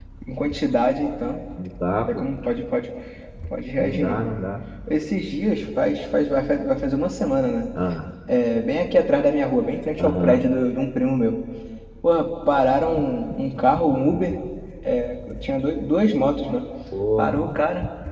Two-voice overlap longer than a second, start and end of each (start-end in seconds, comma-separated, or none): none